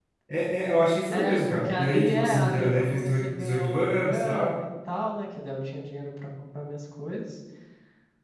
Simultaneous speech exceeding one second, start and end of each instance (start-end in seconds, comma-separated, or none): 1.1-4.5